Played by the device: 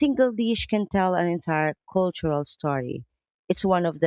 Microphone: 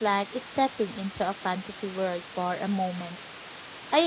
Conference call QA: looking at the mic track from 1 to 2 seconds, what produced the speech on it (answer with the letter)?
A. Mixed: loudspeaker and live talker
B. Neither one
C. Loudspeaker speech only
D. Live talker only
D